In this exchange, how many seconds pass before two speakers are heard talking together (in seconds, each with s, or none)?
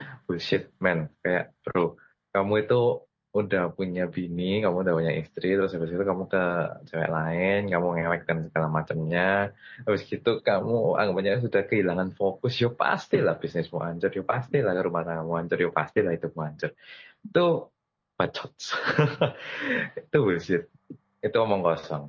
none